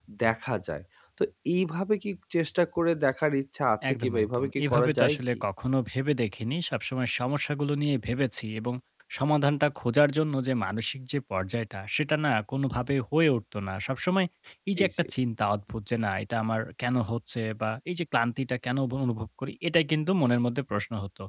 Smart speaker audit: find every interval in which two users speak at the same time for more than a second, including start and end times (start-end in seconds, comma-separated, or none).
3.9-5.2